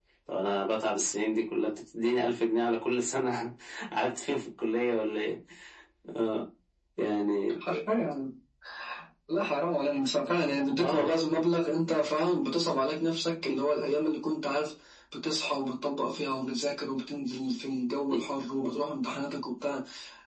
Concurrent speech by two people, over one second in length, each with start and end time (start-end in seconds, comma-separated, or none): none